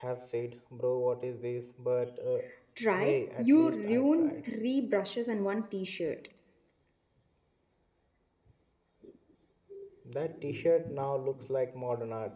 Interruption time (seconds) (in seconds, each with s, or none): 2.9 s